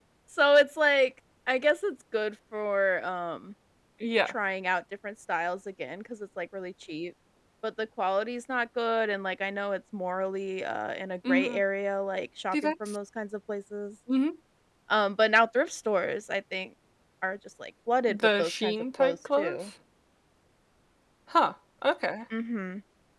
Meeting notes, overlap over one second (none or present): present